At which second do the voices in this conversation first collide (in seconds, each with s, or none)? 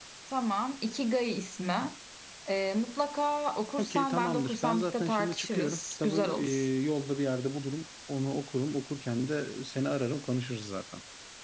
3.8 s